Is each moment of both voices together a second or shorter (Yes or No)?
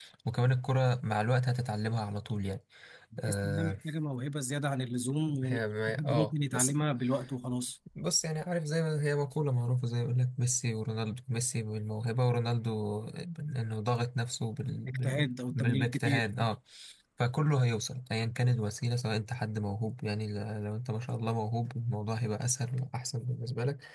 No